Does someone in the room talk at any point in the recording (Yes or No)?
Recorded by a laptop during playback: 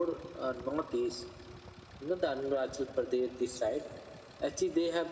No